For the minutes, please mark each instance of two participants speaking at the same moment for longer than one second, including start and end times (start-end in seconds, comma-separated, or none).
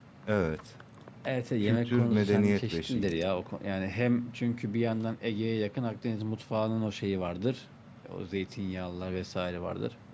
1.6-3.2